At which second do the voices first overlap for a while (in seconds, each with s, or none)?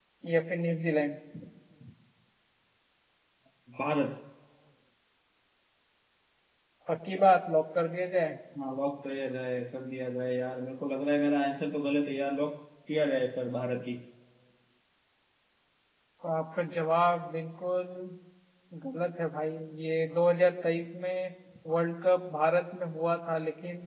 none